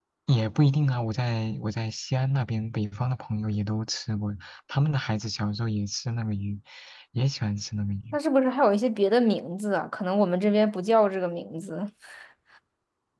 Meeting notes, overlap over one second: none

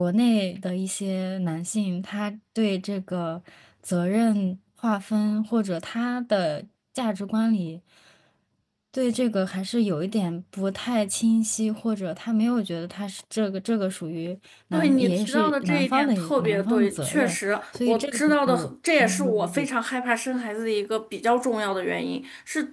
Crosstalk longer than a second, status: present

